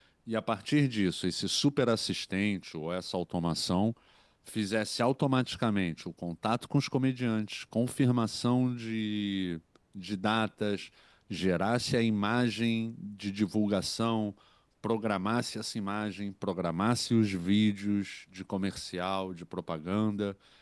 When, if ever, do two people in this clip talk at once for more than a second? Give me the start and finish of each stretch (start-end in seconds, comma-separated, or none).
none